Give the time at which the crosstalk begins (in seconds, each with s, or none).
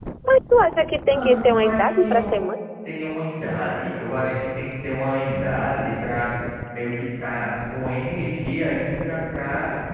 1.1 s